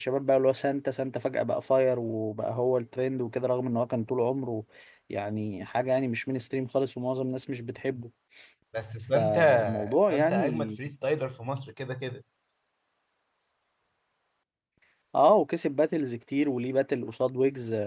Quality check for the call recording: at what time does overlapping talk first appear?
9.2 s

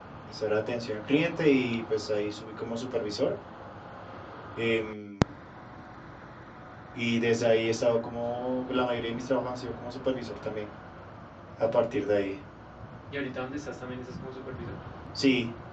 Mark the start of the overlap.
none

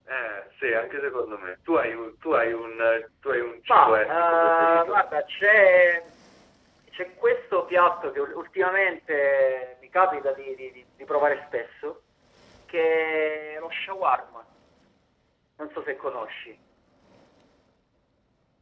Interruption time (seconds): 3.7 s

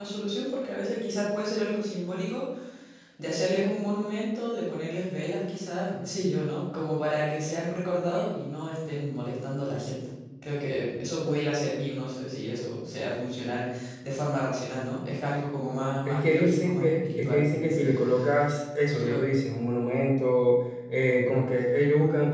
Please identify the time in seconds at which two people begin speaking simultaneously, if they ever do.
16.0 s

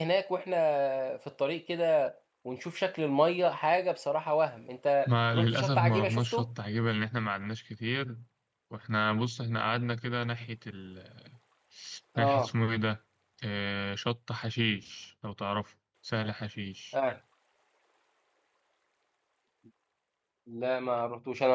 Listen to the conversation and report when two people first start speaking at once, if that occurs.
5.1 s

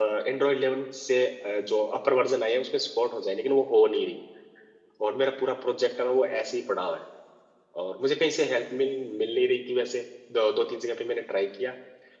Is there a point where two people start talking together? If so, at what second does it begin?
none

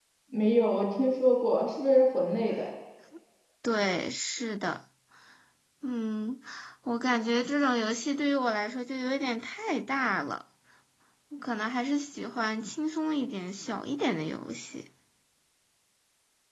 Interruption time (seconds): none

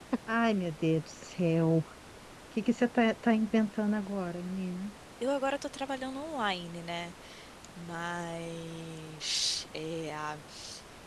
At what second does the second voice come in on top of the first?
none

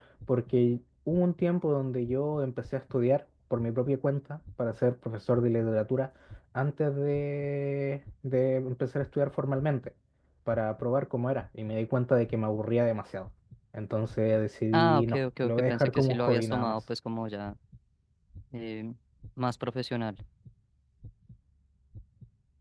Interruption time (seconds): 14.7 s

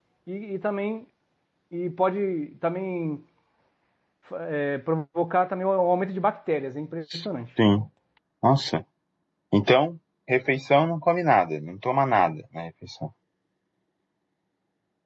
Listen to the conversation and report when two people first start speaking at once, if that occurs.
none

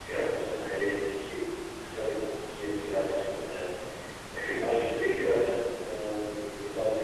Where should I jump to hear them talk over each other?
none

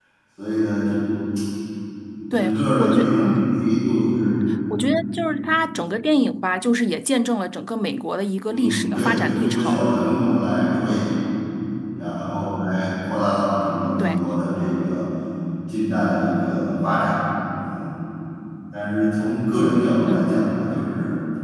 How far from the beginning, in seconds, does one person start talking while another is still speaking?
2.3 s

